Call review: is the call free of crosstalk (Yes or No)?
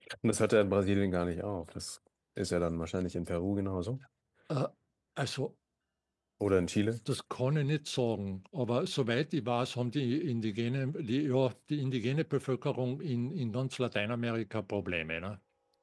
Yes